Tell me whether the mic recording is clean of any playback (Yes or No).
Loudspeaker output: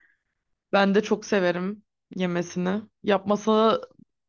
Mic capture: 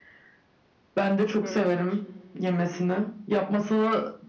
No